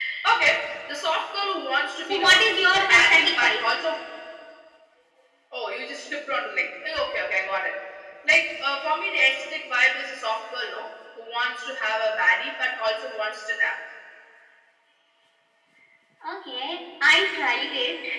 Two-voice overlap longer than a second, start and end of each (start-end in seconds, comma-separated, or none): 2.1-3.6